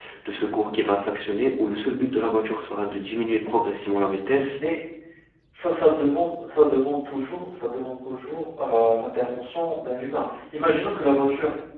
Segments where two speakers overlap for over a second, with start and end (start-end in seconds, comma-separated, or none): none